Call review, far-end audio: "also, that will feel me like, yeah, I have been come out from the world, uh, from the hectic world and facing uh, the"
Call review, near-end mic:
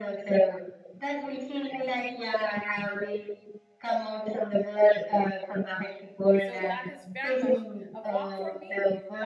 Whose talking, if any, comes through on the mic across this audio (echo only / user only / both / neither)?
both